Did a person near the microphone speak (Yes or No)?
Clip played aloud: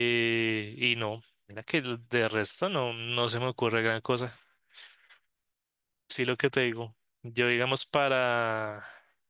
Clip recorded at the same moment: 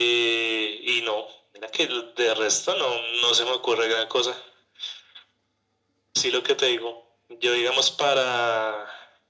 No